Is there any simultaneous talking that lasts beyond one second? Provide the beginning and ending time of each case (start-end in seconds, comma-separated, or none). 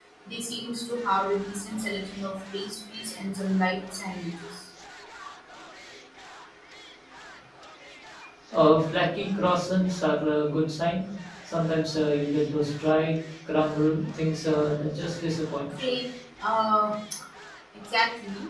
none